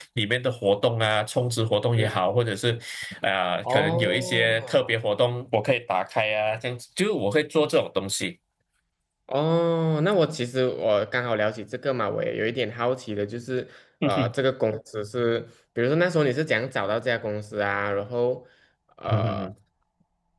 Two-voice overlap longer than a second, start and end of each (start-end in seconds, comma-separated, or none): 3.6-4.9